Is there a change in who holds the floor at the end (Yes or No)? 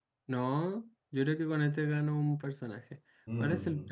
No